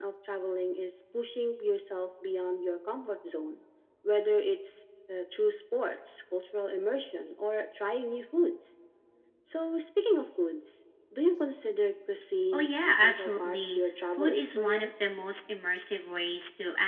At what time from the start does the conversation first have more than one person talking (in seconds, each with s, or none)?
12.5 s